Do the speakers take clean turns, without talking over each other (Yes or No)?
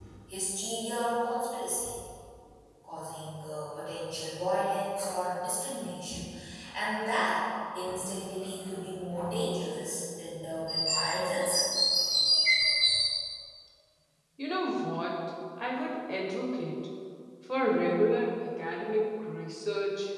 Yes